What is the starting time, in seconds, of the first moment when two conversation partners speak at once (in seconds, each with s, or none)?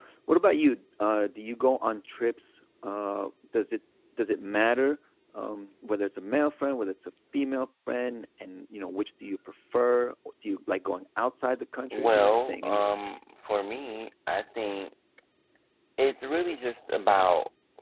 11.9 s